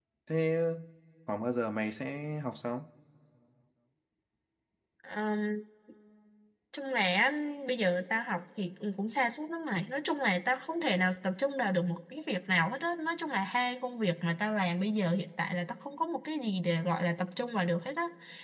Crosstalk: none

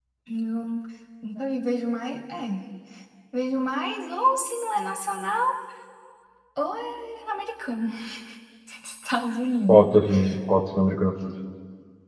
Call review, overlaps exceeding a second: none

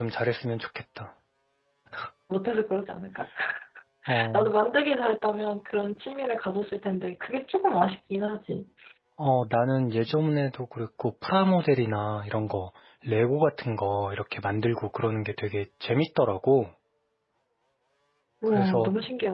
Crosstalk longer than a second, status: none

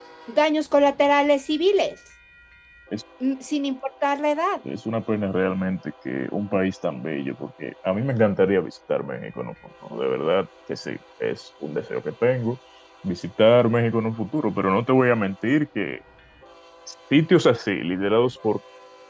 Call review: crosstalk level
none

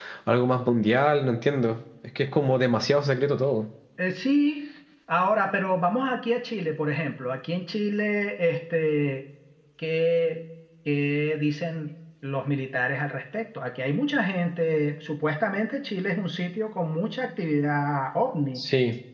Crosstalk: none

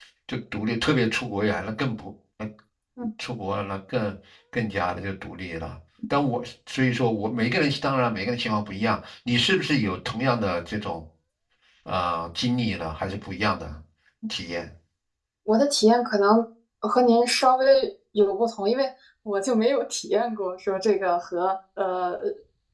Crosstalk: none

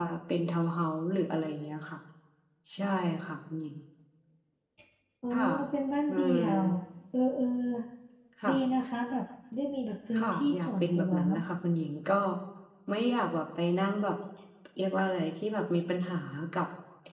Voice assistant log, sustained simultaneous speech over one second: present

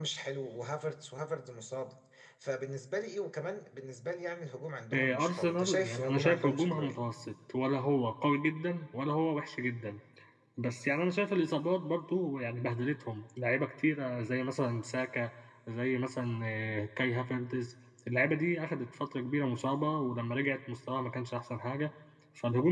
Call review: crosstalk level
present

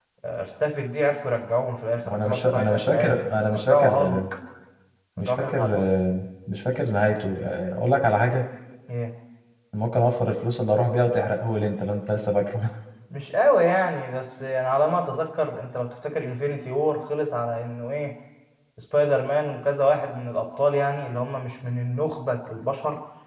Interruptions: present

